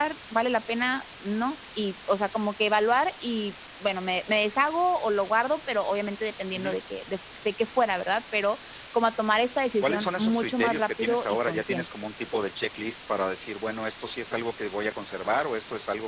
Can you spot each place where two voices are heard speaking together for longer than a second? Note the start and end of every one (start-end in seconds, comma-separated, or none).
9.8-11.8